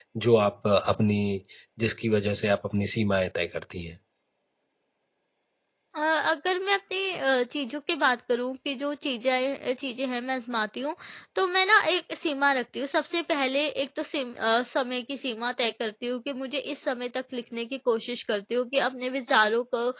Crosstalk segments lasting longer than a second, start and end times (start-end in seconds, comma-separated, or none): none